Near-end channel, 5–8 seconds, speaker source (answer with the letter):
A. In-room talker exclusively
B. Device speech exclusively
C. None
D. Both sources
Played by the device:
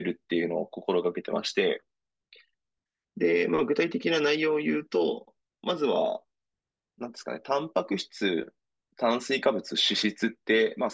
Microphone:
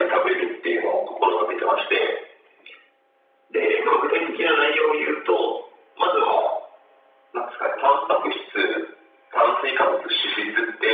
B